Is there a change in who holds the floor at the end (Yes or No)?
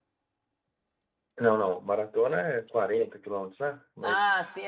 Yes